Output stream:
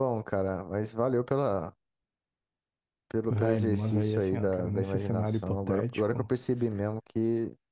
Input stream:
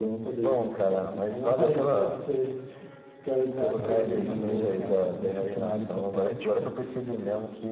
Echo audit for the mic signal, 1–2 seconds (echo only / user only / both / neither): both